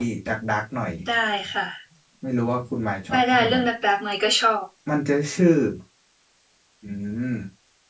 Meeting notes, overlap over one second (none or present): none